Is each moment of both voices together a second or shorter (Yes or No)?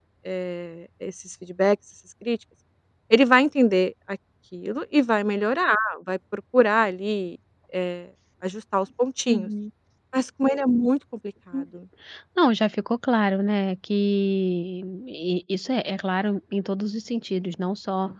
Yes